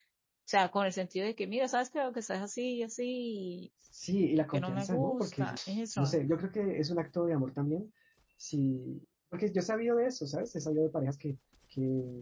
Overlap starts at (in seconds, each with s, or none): 4.2 s